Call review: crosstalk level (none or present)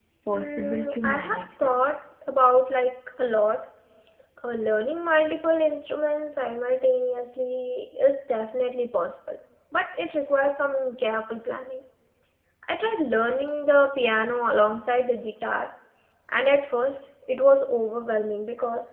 present